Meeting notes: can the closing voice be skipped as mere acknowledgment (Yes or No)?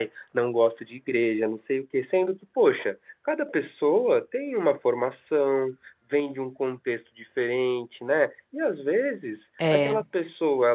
Yes